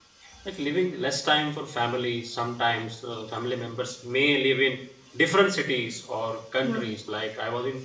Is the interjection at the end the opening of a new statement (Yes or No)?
No